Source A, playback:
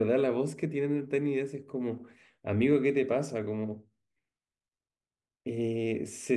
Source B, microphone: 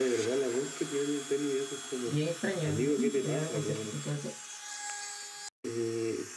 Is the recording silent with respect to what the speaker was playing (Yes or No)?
No